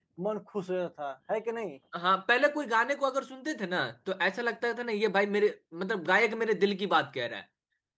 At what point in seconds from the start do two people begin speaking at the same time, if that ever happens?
none

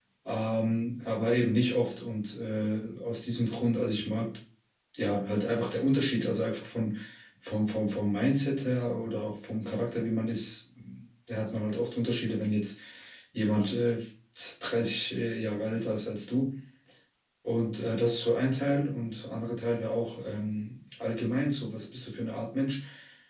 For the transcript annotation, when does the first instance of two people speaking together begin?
none

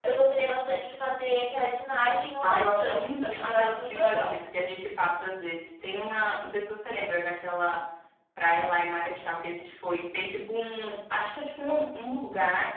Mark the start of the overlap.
2.4 s

